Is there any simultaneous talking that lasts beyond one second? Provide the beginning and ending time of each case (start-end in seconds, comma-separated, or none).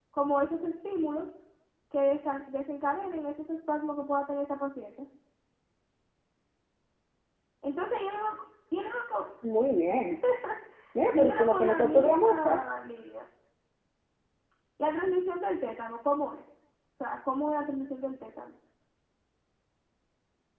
11.1-12.6